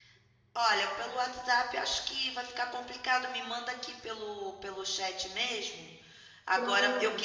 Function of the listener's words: listening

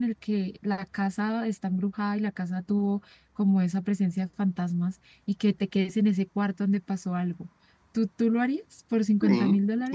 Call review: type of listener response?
taking over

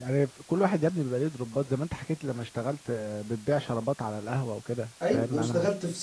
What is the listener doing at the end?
taking over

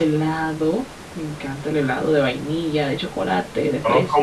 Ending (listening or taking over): taking over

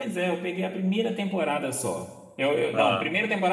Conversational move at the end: listening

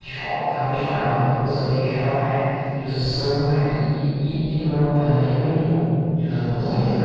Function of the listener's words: listening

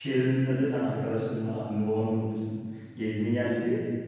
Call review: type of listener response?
listening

